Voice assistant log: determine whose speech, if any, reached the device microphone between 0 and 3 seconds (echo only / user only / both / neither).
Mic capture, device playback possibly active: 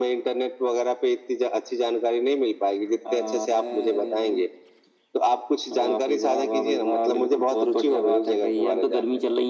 echo only